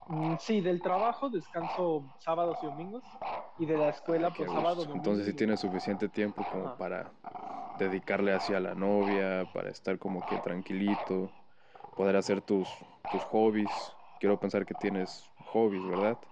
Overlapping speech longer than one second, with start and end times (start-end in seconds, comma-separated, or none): 4.1-5.5